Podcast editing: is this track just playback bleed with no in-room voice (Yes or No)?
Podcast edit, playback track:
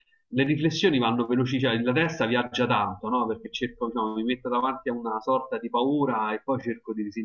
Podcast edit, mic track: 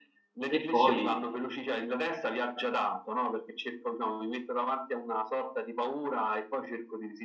No